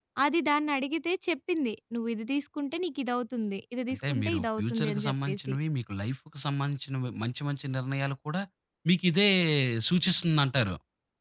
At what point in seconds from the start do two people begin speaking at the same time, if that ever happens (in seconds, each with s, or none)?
3.9 s